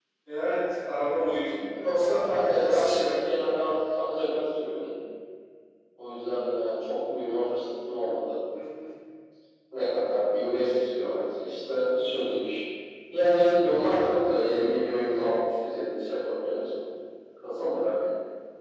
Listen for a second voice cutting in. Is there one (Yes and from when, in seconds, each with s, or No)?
Yes, from 1.7 s